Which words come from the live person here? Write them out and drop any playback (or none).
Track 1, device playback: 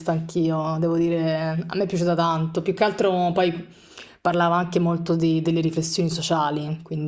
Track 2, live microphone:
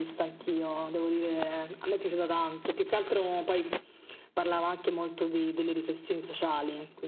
none